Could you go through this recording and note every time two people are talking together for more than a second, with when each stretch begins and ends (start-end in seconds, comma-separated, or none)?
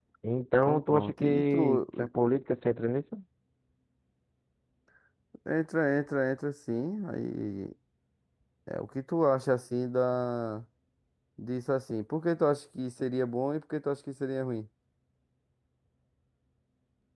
0.6-1.8